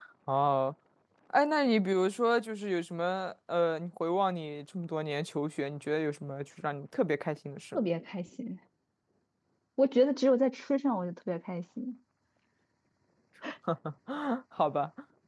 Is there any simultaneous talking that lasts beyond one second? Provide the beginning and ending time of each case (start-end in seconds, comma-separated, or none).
none